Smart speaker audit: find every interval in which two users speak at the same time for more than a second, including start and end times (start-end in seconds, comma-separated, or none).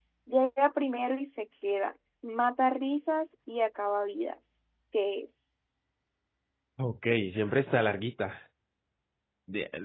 none